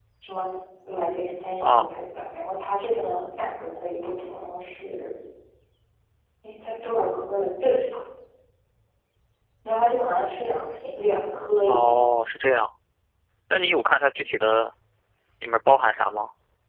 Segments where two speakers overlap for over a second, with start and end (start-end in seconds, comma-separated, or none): none